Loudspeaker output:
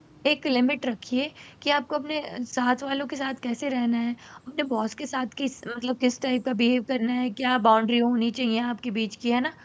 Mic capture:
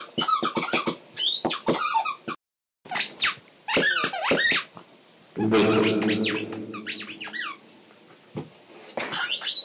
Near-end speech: present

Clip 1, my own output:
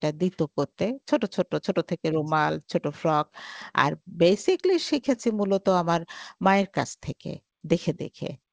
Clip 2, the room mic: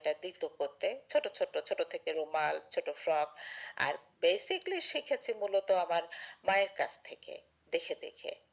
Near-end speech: none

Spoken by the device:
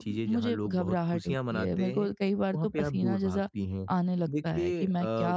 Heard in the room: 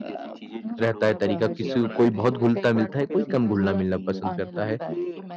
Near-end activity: present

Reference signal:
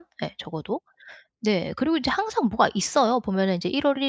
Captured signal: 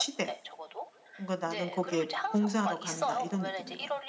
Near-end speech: present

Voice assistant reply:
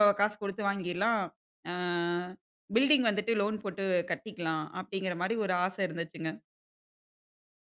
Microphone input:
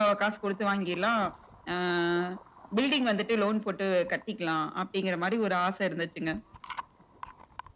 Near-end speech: none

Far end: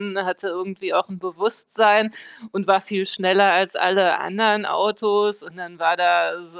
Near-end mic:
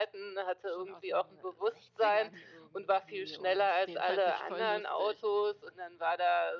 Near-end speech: present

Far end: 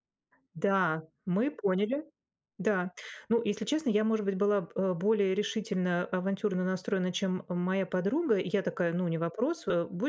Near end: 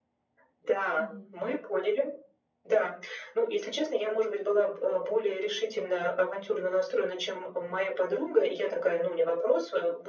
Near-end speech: present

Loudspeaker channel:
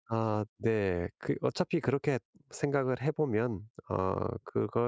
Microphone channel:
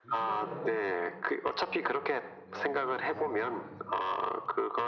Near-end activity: present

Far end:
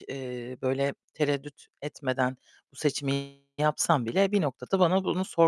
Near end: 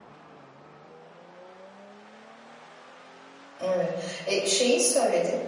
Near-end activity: present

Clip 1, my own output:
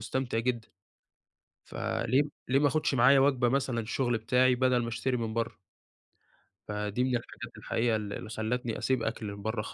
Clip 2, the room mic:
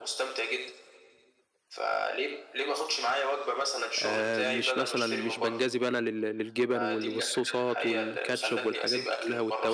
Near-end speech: present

